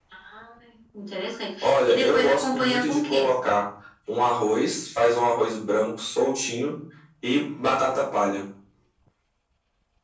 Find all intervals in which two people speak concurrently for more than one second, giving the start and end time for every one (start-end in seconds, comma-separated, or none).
1.6-3.3